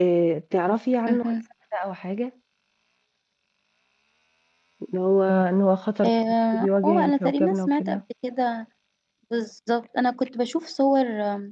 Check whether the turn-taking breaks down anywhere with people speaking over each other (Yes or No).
Yes